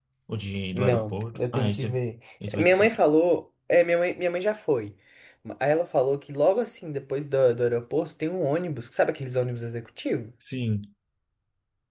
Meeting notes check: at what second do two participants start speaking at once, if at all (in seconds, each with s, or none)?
0.7 s